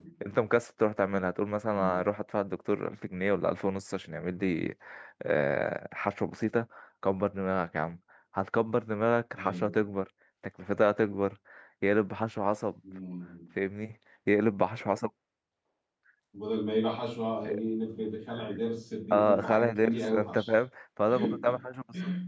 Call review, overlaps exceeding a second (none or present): present